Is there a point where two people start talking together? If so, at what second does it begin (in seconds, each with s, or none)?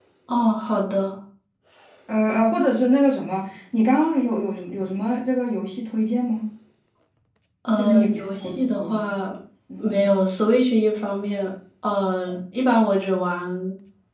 7.8 s